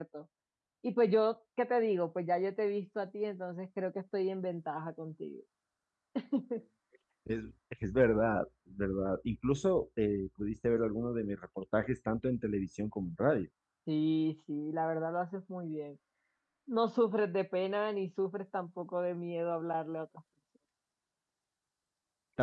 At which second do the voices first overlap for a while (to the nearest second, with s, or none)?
none